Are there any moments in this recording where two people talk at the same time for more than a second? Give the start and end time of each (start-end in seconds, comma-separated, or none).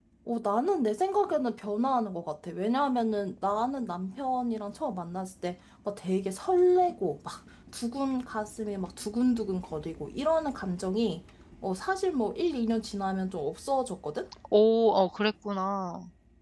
none